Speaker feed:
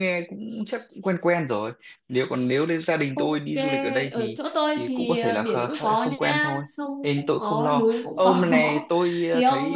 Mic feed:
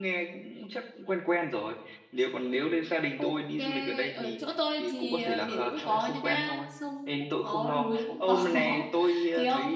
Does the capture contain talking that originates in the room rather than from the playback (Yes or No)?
No